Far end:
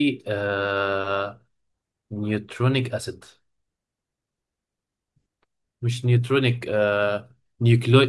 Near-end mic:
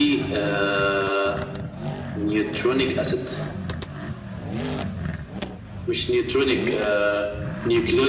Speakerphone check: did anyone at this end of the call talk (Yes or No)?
No